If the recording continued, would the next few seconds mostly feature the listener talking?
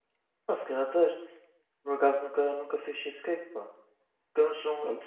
No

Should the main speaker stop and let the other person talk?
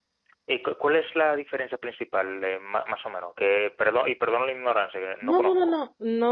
Yes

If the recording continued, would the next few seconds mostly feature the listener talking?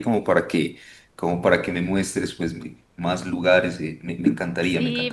Yes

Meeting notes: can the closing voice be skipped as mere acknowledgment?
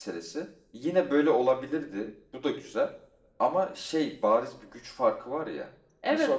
No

